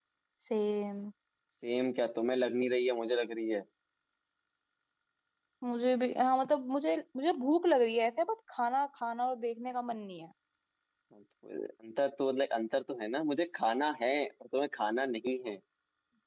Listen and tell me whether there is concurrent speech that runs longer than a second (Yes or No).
No